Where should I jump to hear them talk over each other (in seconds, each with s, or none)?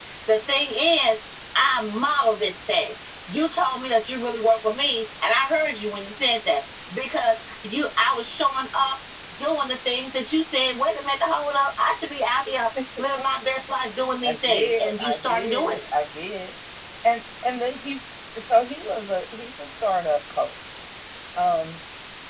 14.2 s